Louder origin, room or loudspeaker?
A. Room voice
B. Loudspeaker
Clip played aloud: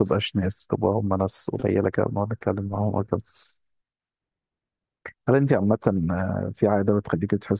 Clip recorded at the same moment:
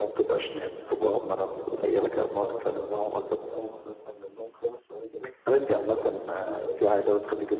B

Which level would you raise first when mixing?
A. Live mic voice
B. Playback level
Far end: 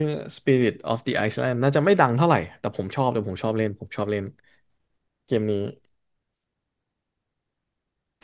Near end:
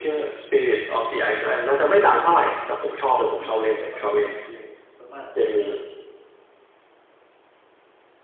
A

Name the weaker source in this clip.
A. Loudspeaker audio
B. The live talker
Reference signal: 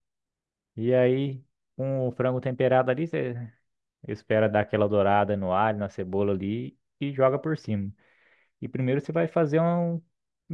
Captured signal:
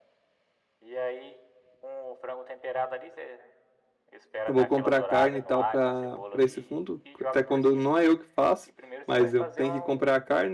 A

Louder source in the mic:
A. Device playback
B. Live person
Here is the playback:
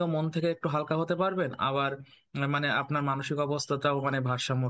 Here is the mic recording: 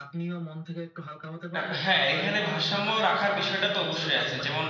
B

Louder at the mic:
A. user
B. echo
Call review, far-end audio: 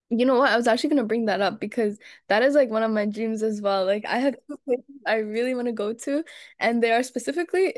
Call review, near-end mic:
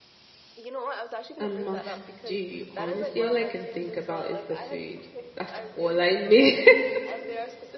A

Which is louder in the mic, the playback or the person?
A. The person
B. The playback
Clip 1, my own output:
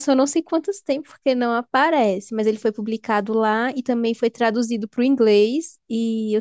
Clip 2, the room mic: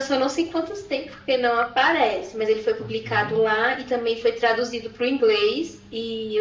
B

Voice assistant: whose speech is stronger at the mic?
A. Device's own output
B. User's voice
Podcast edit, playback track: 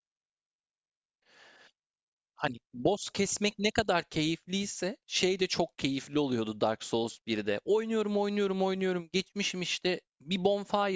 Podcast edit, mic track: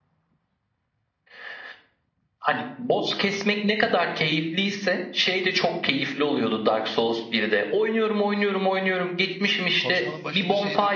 A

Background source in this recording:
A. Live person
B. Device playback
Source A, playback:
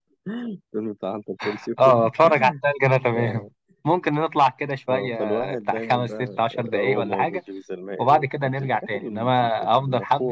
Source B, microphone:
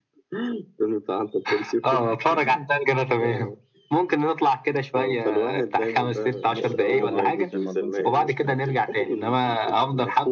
A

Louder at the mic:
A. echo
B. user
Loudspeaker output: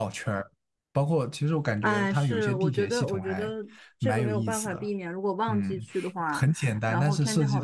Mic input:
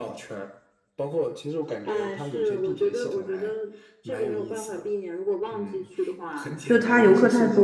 B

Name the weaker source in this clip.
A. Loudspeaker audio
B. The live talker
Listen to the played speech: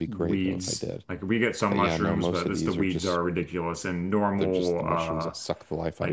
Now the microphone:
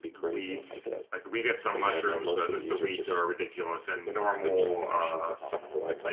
B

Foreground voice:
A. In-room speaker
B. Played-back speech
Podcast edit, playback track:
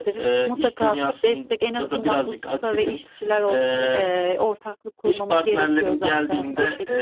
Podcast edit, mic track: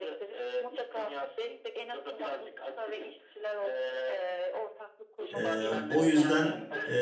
A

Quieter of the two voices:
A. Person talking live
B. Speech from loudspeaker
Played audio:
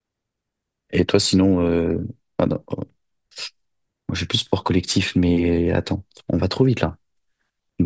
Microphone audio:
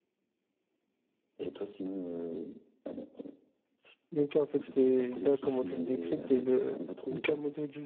B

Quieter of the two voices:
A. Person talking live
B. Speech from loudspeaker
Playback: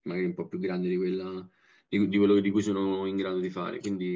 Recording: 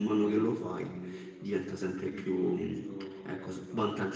B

